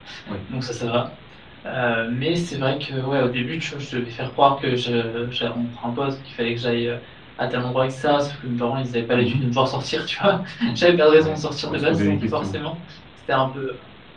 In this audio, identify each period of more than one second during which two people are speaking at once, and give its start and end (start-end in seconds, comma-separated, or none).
11.2-12.6